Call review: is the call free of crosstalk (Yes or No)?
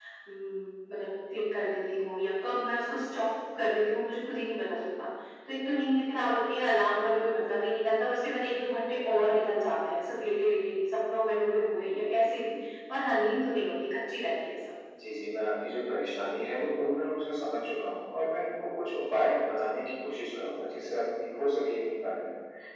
Yes